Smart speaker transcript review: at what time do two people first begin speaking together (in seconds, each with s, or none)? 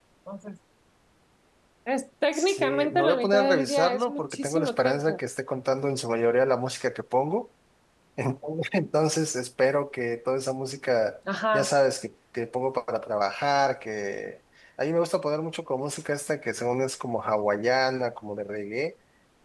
2.3 s